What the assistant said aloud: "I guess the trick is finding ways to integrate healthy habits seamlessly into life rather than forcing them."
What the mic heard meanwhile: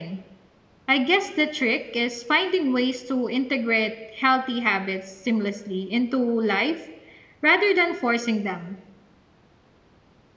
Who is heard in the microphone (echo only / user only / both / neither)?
echo only